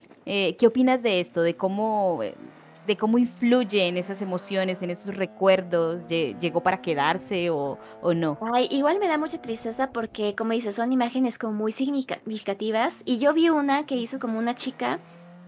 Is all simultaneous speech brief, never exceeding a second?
Yes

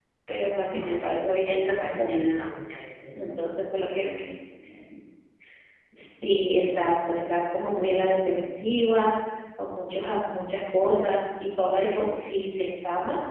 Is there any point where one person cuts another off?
Yes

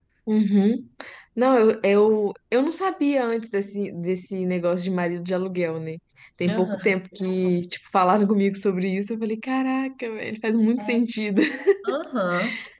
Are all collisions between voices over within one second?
Yes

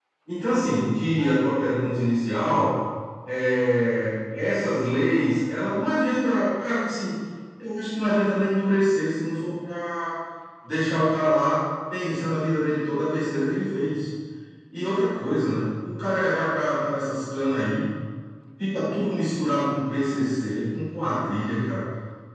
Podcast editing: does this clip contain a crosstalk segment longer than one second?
No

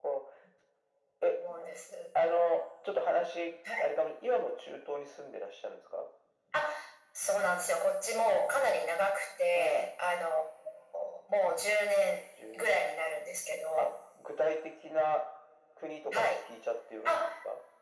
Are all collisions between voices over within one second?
Yes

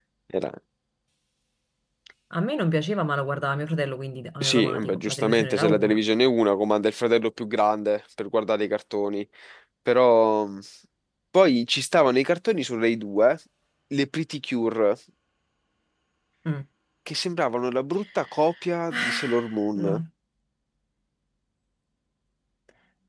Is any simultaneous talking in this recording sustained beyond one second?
Yes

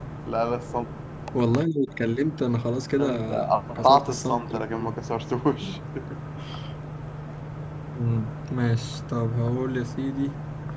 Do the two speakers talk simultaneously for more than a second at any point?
Yes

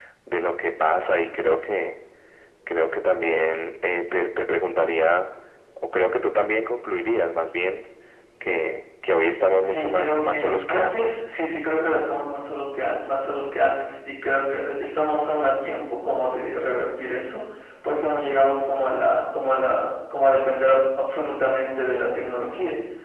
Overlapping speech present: Yes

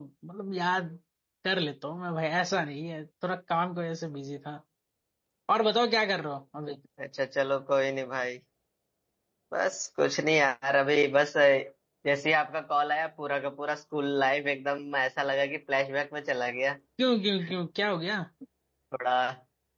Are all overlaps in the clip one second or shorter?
Yes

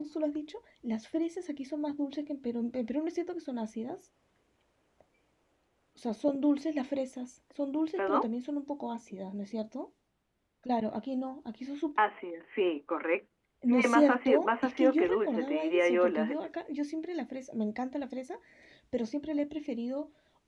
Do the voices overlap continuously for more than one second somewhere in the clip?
Yes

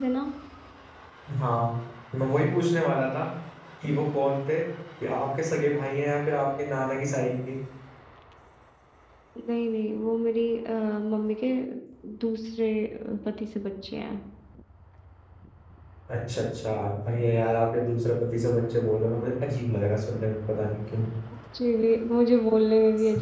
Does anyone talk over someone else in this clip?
No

